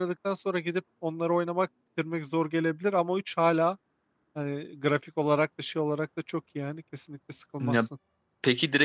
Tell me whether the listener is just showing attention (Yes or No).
No